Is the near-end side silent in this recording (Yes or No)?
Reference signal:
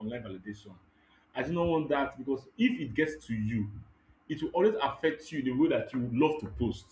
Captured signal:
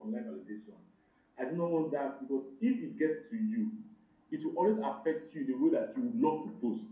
Yes